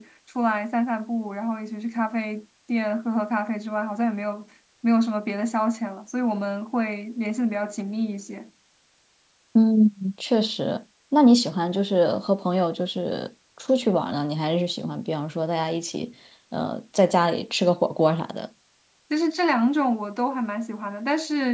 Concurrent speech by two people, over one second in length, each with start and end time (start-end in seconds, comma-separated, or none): none